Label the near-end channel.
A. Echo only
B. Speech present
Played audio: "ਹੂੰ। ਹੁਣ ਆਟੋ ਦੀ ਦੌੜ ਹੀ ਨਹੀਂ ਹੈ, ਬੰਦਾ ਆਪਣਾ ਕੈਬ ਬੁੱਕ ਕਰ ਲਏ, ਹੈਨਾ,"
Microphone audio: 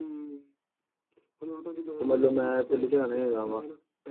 B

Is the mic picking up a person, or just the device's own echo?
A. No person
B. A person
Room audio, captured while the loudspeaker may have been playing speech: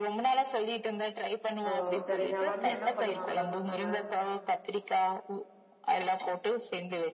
B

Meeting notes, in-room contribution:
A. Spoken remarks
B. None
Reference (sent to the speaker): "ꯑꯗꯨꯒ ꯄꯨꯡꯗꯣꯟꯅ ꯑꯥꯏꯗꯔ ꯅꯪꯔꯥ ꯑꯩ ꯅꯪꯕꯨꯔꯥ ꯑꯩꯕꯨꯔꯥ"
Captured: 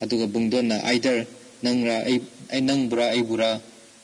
B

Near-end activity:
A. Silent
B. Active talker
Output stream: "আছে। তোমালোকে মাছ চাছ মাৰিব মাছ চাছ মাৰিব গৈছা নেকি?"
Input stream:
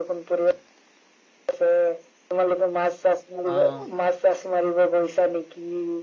B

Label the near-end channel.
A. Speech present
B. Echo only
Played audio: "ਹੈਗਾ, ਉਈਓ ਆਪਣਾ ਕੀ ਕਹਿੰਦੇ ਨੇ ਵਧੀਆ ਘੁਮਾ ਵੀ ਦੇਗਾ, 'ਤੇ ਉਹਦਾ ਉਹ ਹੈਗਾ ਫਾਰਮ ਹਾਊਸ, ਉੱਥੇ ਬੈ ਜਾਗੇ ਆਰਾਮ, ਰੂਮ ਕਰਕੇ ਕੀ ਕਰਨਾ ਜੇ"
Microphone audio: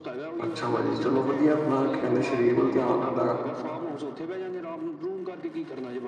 A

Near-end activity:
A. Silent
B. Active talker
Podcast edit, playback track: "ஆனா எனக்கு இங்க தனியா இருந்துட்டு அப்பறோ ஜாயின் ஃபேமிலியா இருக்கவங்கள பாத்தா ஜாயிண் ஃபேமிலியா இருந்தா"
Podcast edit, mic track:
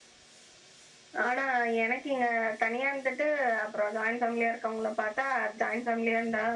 A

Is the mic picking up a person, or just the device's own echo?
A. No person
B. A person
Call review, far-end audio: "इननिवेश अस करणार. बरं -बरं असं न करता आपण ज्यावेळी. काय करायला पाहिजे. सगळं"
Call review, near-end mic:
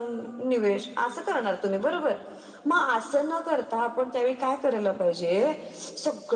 A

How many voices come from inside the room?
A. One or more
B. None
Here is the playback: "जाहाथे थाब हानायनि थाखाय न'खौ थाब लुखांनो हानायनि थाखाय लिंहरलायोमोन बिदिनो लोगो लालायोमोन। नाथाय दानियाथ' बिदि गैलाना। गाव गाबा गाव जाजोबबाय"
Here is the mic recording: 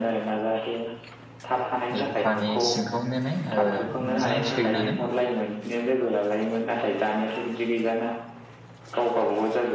A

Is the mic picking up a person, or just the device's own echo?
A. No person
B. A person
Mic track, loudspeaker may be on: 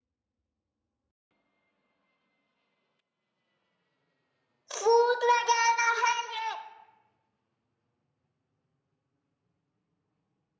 B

